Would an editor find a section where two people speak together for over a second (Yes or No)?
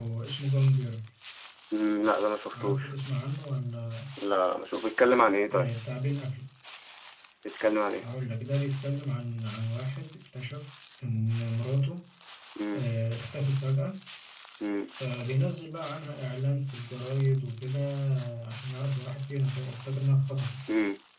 No